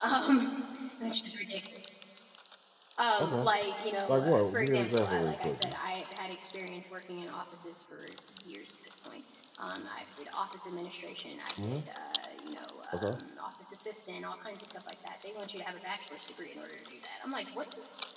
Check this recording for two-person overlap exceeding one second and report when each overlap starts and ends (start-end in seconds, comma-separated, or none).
4.1-5.7